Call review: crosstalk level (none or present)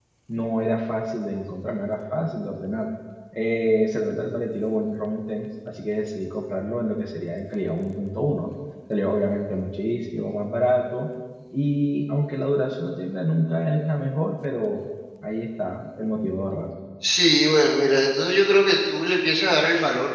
none